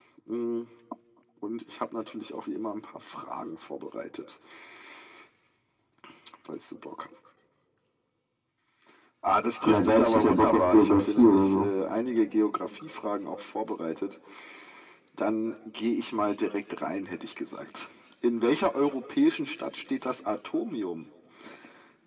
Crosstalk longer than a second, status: present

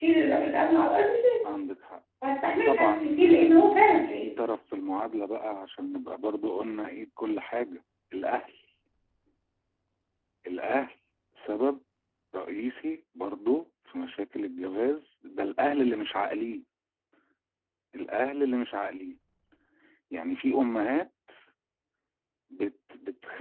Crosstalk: present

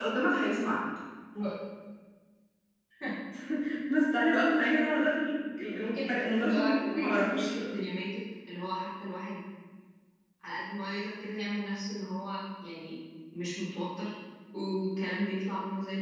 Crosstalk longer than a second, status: present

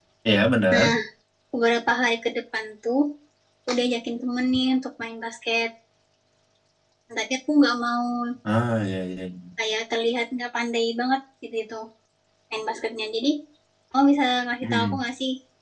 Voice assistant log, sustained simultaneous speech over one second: none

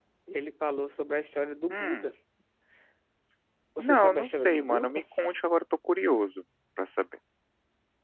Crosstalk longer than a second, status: present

